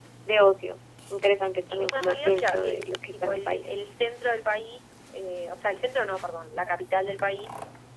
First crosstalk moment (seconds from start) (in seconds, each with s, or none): 1.7 s